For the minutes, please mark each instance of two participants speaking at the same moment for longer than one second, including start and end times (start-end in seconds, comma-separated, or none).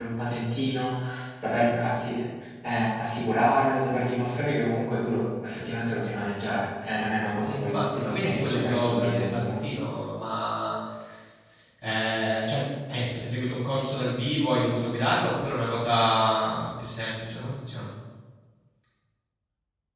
7.4-9.6